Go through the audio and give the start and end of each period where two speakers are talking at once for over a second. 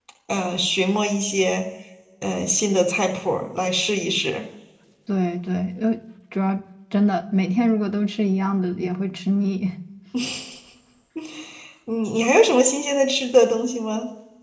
none

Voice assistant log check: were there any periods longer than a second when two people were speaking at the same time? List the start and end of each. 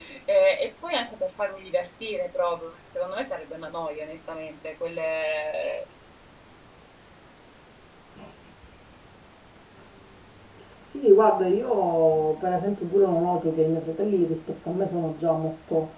none

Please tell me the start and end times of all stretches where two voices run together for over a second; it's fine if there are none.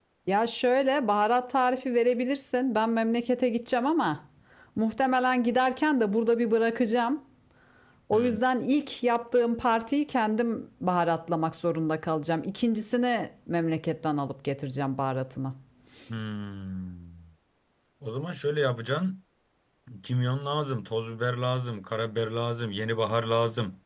none

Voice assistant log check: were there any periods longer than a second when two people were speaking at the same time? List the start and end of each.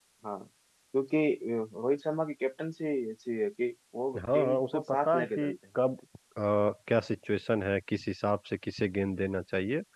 4.2-5.5

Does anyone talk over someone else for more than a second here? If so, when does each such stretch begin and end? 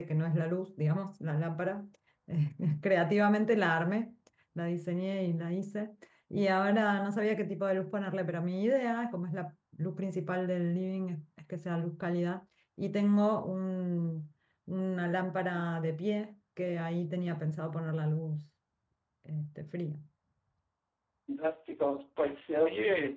none

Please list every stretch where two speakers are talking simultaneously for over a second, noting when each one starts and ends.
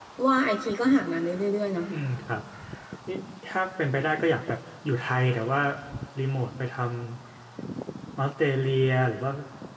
none

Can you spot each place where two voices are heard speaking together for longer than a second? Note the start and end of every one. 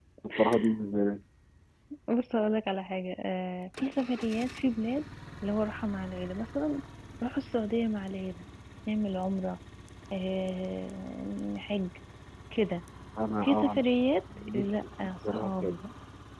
14.4-15.8

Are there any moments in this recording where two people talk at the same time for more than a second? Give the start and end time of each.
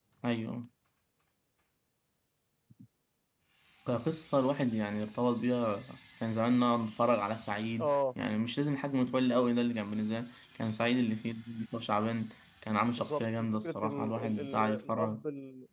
13.0-15.2

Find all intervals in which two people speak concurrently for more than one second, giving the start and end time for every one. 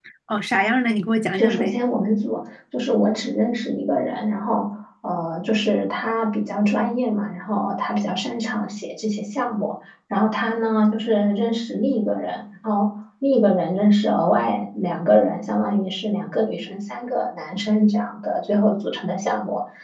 none

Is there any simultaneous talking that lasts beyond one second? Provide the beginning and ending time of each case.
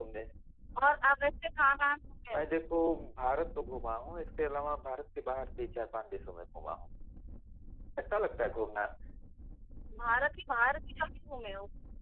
none

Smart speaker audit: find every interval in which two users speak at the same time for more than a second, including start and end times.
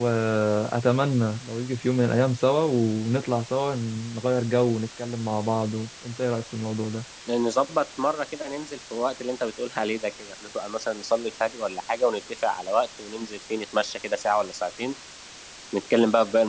none

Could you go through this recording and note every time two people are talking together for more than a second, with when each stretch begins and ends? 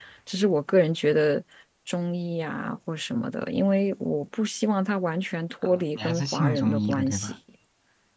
5.7-7.3

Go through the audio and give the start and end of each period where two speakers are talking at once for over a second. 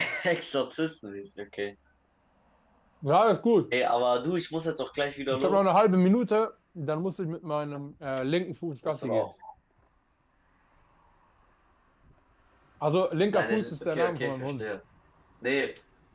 13.3-14.6

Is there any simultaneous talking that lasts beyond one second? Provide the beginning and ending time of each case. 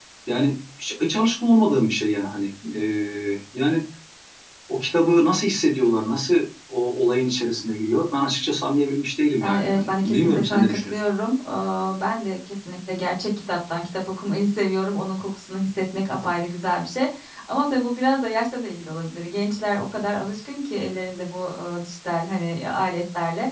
9.4-11.0

